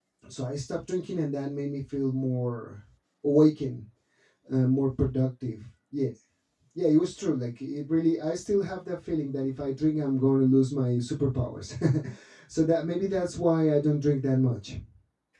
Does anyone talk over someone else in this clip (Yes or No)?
No